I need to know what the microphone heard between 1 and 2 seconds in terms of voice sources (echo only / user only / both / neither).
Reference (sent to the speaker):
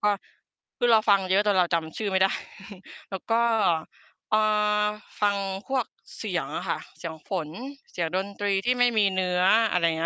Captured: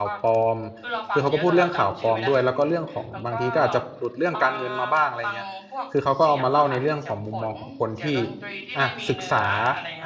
both